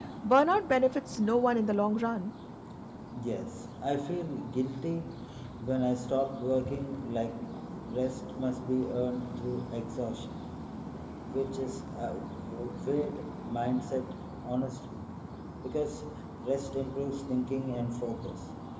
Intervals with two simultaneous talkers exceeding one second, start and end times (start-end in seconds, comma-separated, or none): none